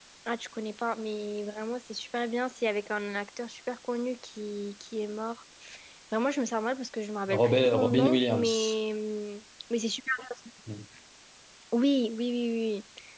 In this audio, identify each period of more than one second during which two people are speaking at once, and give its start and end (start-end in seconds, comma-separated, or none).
7.3-8.7